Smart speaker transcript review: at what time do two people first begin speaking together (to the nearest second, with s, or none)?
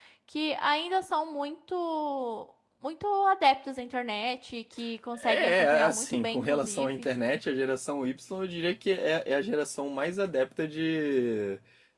5 s